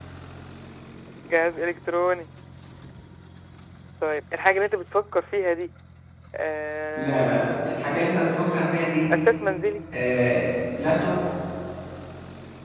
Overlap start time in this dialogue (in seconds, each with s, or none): 7.0 s